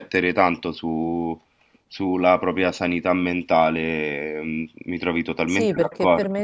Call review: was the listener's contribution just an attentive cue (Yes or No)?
No